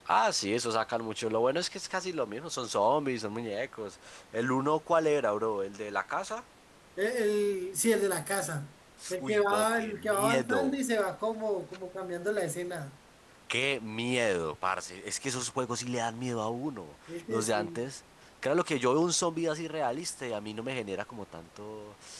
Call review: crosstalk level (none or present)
present